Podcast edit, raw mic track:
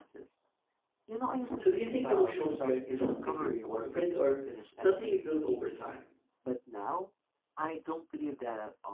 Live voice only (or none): So, do you think emotional strength is something you're born with or something you build over time?